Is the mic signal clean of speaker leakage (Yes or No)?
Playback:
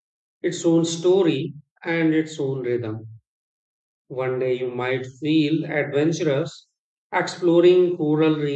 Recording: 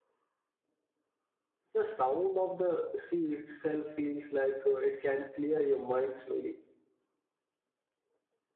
Yes